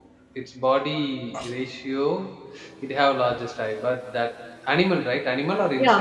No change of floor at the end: No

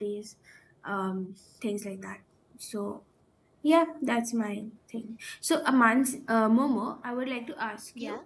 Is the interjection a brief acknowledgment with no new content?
Yes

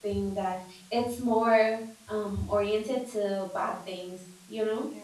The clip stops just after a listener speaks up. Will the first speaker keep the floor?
Yes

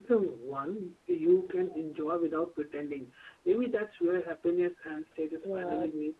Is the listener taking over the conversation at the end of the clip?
Yes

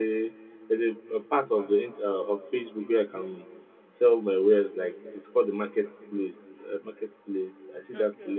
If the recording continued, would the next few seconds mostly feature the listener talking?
No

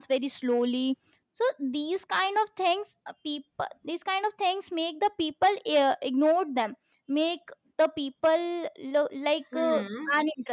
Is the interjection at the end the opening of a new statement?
No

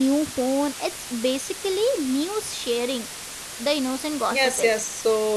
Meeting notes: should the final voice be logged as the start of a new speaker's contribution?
Yes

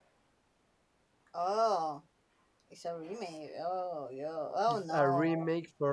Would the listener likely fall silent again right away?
No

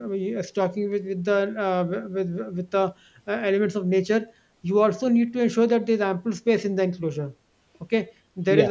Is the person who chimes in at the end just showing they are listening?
Yes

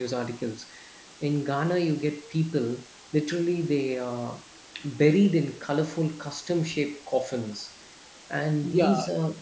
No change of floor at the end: Yes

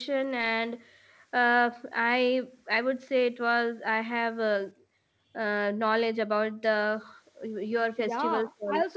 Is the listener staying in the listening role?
No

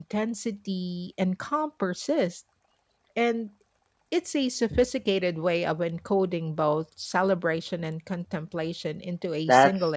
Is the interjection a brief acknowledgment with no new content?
No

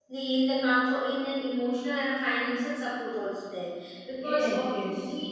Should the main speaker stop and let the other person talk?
No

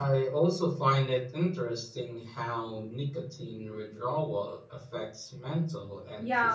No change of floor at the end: No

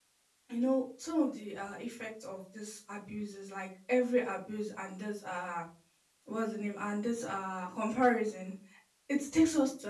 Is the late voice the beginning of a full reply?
No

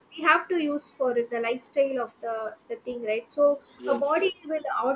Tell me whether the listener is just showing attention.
Yes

